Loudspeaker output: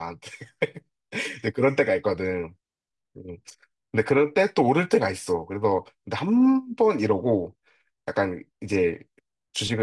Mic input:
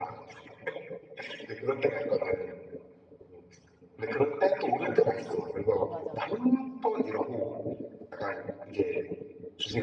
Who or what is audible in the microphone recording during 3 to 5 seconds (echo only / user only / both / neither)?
echo only